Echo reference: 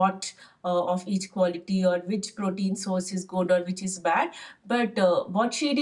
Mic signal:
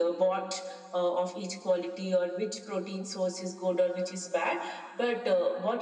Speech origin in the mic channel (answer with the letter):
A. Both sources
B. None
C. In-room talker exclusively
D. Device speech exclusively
D